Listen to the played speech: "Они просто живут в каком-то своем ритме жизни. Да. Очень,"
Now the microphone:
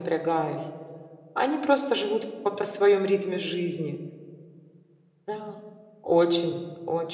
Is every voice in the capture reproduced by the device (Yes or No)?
Yes